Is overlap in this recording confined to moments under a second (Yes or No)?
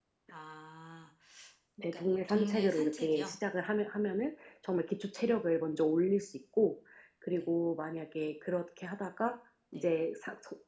No